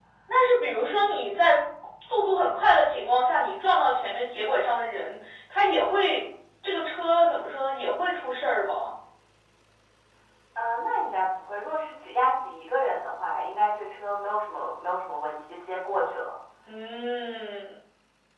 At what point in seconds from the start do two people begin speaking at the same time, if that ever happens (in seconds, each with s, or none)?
none